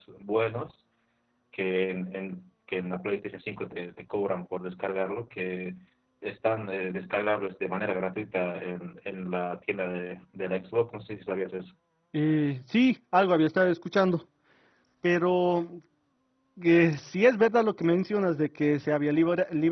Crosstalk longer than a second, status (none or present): none